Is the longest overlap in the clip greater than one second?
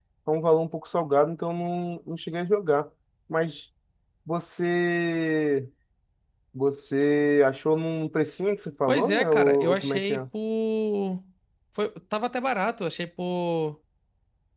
Yes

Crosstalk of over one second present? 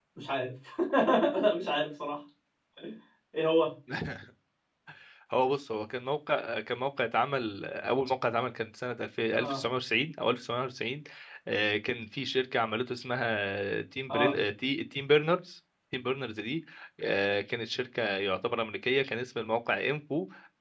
No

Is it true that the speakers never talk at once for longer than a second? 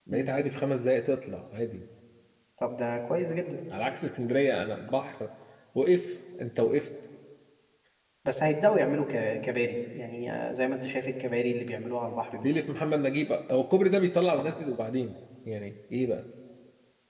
Yes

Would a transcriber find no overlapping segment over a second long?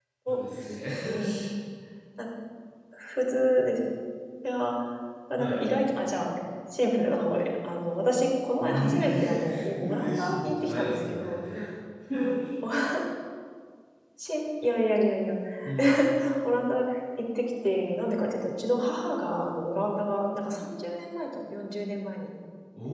No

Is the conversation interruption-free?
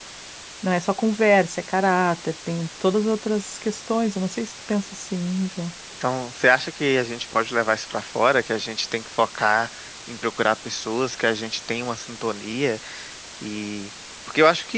Yes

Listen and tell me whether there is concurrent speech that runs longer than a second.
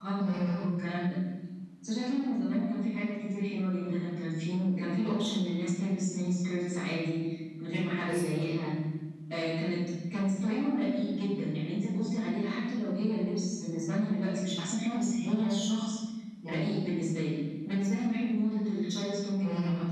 No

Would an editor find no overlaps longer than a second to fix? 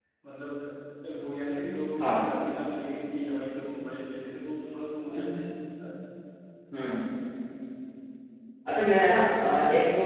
Yes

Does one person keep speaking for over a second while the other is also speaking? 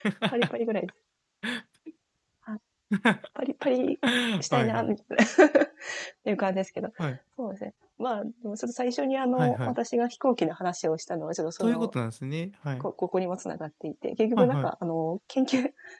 No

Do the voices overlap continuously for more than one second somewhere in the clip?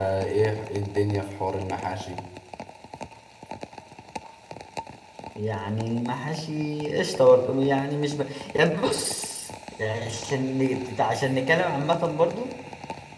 No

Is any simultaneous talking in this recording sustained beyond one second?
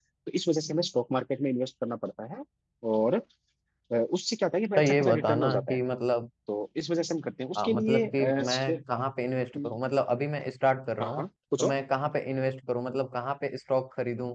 Yes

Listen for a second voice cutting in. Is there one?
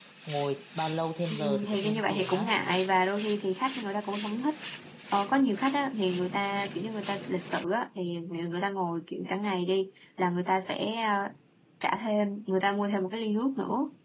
Yes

